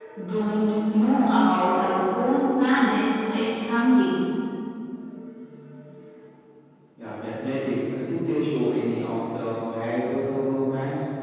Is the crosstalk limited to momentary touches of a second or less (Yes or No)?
Yes